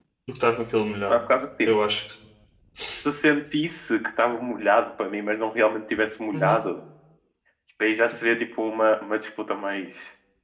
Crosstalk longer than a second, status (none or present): none